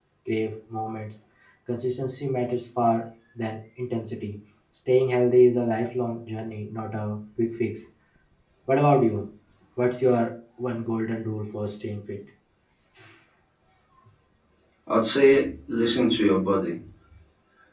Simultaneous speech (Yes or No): No